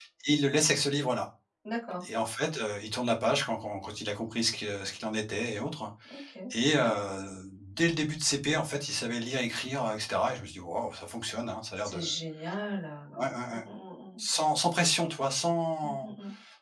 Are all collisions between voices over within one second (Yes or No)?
Yes